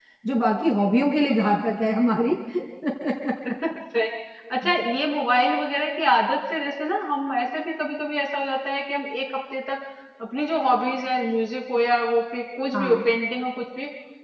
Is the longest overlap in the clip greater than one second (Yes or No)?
No